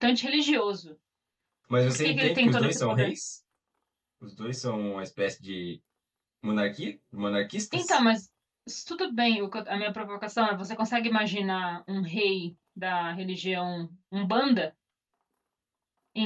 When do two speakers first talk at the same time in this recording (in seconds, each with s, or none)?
1.9 s